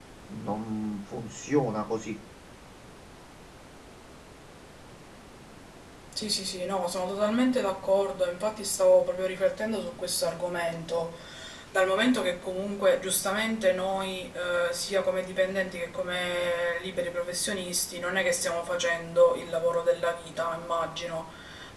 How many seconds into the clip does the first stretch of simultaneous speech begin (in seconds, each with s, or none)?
none